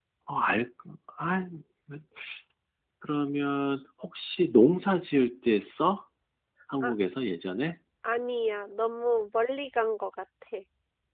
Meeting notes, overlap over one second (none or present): none